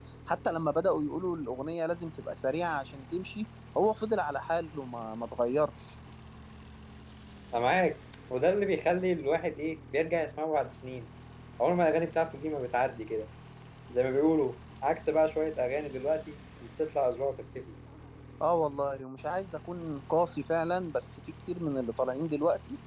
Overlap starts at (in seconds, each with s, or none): none